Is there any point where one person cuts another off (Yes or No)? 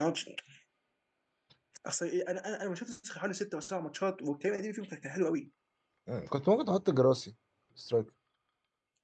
No